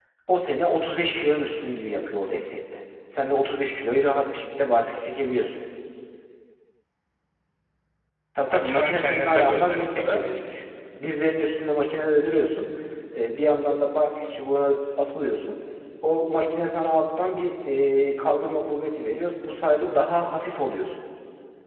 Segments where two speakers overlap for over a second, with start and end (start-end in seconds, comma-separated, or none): 8.5-10.2